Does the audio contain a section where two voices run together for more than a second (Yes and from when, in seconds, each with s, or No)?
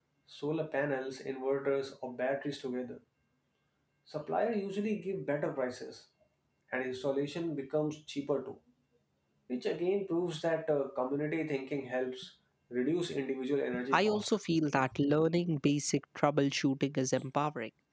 No